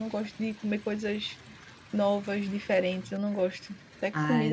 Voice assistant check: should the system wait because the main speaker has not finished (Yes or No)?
No